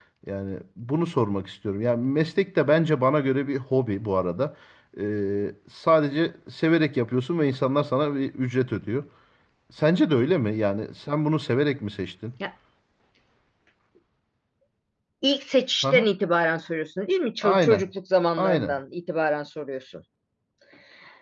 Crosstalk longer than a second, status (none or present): none